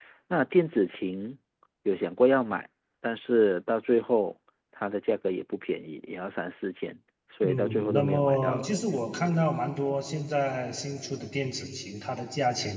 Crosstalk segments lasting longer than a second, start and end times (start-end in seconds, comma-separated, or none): 7.4-8.7